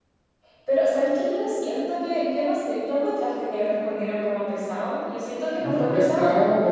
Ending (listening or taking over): taking over